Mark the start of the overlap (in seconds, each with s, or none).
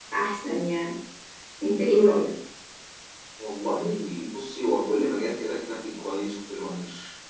none